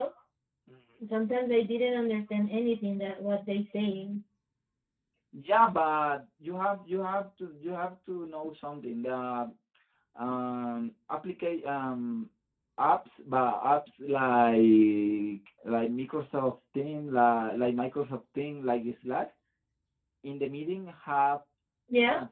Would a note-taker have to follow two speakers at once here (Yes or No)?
No